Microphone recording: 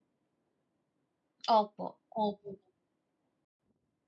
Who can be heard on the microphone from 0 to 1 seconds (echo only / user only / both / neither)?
neither